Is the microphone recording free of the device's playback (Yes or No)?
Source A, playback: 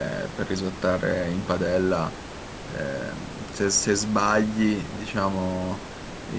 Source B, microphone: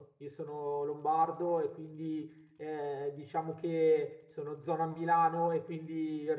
Yes